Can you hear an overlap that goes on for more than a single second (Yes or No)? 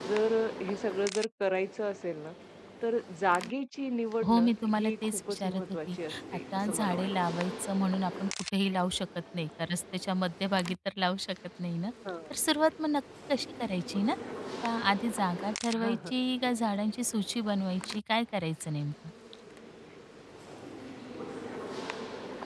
Yes